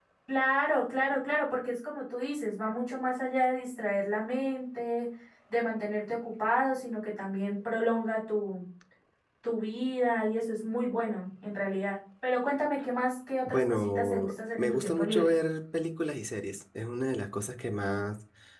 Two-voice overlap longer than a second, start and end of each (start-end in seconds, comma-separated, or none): 13.5-15.3